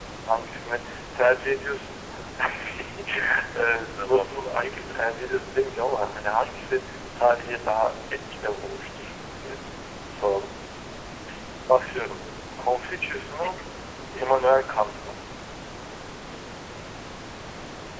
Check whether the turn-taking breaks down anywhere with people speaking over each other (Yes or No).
Yes